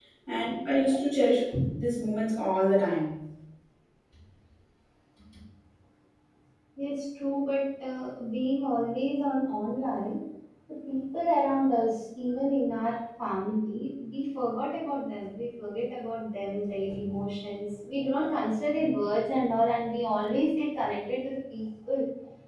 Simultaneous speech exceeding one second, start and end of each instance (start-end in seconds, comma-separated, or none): none